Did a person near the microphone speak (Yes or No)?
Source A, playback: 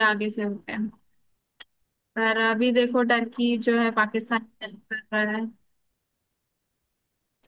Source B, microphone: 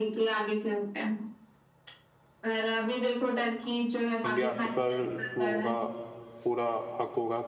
Yes